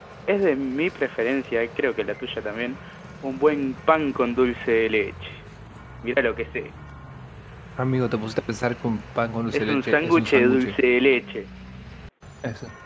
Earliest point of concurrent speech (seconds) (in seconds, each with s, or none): 9.5 s